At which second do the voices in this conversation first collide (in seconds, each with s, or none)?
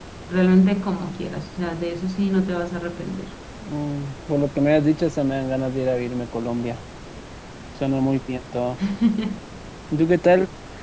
none